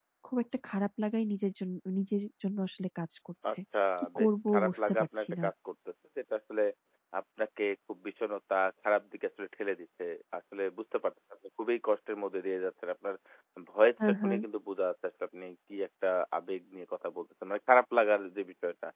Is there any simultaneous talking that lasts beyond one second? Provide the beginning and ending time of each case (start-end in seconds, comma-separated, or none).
4.2-5.5